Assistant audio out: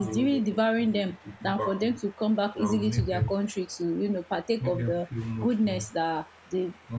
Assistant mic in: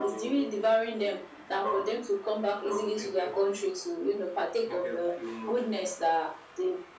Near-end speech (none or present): none